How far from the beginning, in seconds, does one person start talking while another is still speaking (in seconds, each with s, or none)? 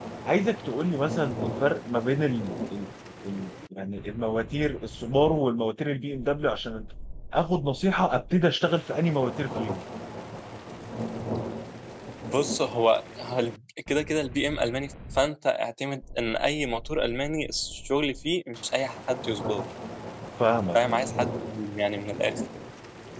none